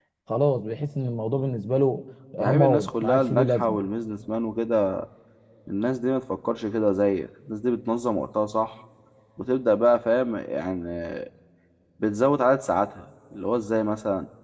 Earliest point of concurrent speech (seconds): 2.4 s

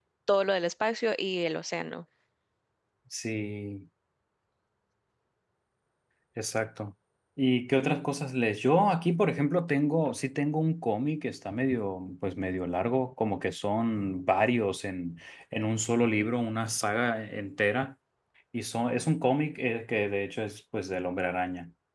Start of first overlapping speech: none

